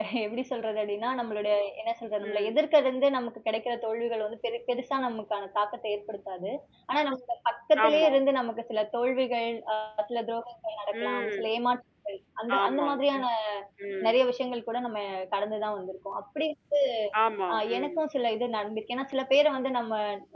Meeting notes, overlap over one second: none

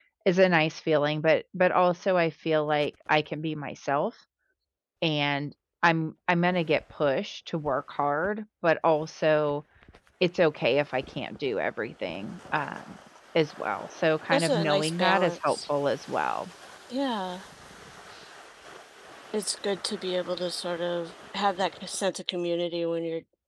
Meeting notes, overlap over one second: present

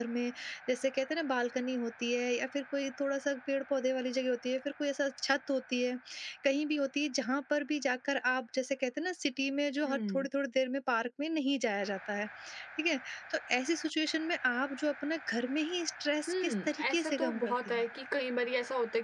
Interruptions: present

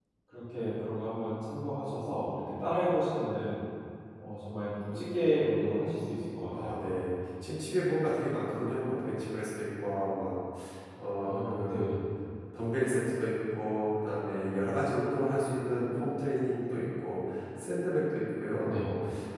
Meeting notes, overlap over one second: none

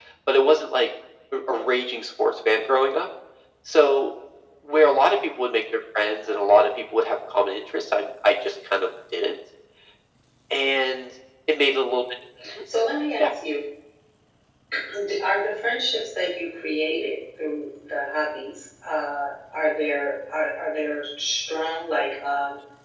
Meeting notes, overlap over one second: none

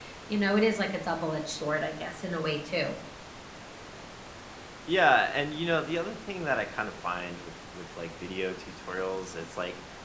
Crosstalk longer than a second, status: none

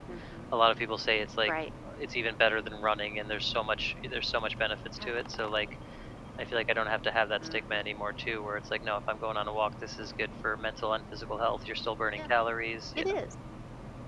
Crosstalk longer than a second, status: none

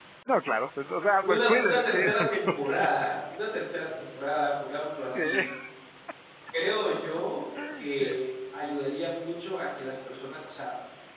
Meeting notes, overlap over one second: present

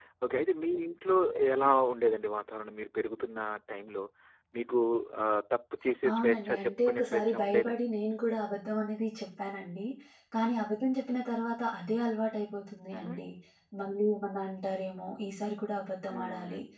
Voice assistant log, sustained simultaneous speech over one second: present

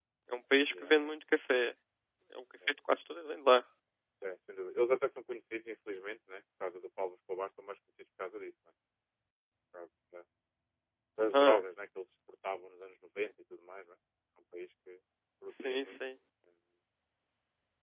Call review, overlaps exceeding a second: none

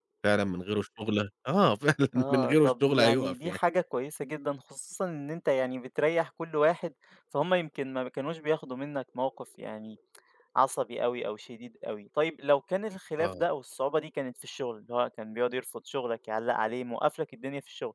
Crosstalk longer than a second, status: present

